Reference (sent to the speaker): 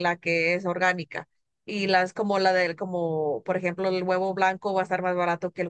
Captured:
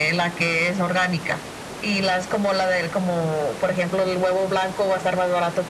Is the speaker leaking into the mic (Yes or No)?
Yes